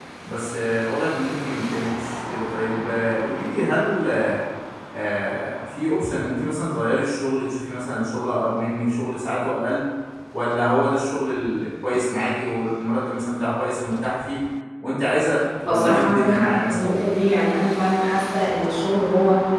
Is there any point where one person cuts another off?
Yes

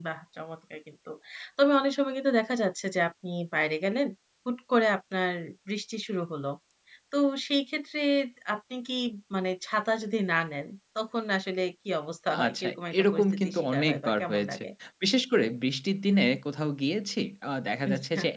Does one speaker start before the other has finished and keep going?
Yes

